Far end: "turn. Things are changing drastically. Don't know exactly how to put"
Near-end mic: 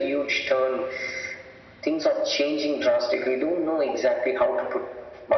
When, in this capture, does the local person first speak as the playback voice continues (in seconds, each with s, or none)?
none